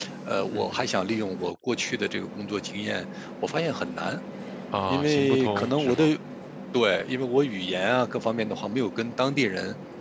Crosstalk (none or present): present